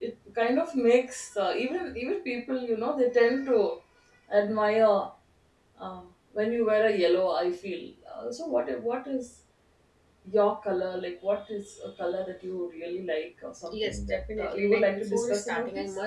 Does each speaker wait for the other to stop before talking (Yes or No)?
No